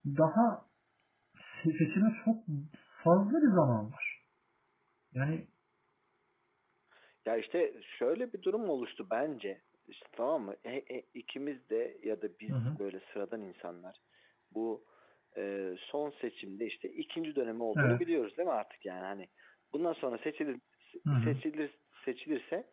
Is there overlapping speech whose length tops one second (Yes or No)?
No